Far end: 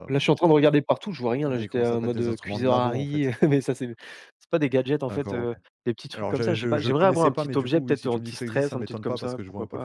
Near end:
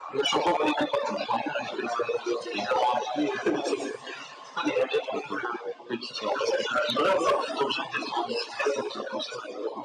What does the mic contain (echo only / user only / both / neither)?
echo only